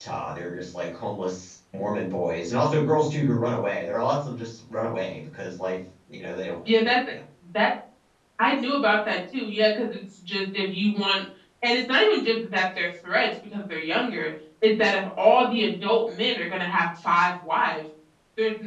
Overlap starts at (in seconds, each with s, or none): none